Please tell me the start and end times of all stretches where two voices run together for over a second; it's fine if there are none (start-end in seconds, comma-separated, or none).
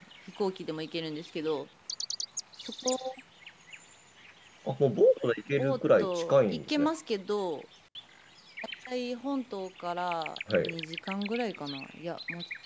5.6-6.9